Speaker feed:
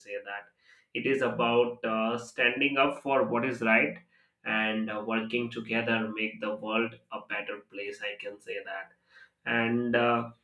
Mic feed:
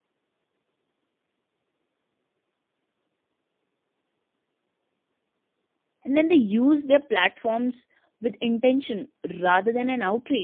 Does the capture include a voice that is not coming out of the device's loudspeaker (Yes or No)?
Yes